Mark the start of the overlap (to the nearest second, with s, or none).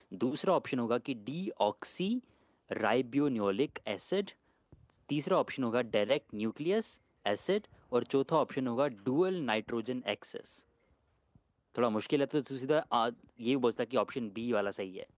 none